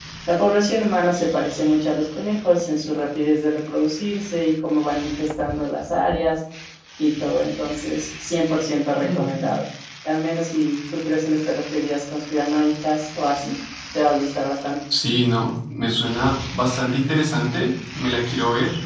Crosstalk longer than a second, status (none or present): none